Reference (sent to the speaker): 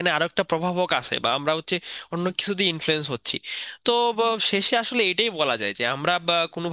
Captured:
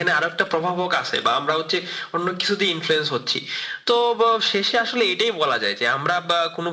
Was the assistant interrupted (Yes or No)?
No